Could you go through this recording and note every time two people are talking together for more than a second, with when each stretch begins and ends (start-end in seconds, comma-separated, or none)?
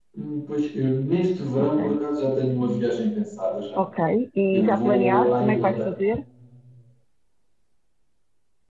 4.5-5.9